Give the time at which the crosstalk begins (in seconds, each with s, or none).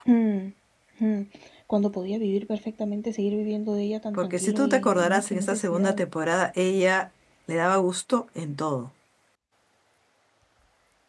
4.1 s